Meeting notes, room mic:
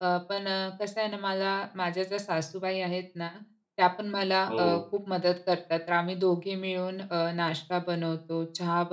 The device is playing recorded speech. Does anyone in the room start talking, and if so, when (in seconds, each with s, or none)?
4.5 s